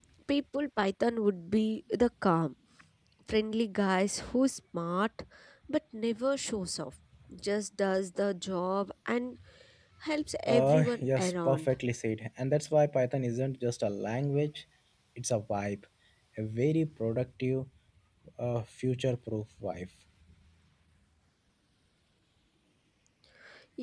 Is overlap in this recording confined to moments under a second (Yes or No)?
No